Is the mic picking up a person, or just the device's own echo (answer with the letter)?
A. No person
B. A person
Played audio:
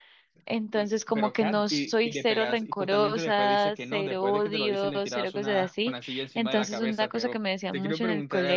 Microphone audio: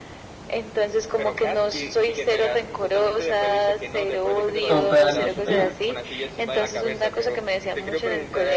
B